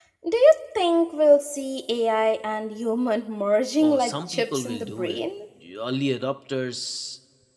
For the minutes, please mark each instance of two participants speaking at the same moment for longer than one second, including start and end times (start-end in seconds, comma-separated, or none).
3.8-5.2